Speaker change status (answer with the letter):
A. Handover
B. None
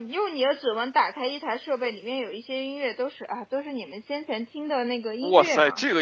A